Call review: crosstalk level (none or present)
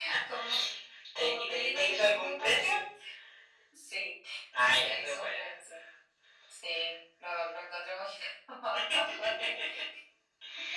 present